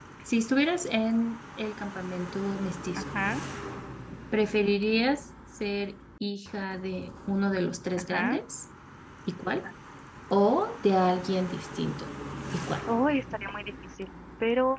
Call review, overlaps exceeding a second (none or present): none